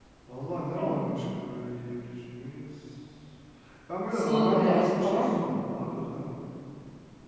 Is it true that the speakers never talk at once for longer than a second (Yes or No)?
No